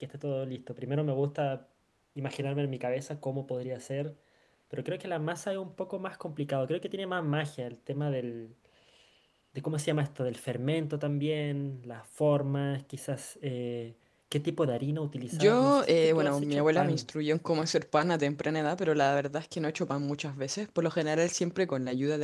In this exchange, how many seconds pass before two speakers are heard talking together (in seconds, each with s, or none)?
15.3 s